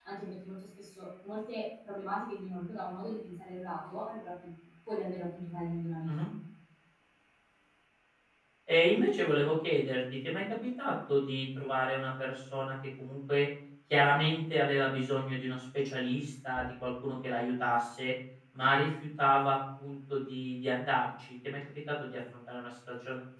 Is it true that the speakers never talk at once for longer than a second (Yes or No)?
Yes